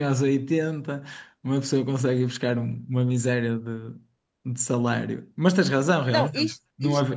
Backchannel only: No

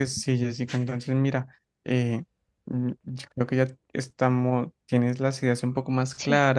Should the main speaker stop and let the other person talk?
No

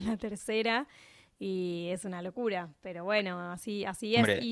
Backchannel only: Yes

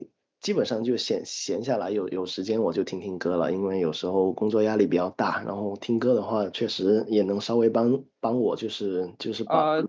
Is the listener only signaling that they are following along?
Yes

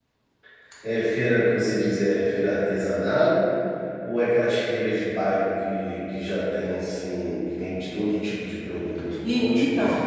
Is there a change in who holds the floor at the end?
Yes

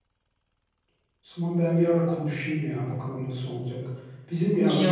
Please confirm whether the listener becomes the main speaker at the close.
No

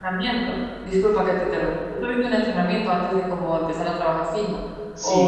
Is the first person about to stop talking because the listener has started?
Yes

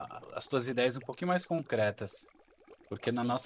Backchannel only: Yes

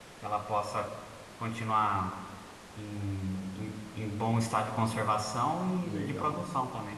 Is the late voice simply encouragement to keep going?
No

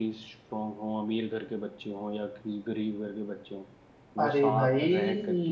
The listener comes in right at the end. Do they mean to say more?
No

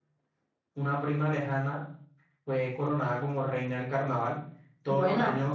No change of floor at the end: Yes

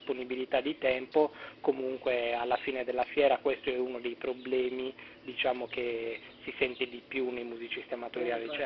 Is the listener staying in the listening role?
Yes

